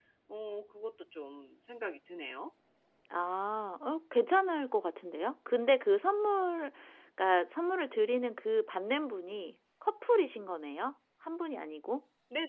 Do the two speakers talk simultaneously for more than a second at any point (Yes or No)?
No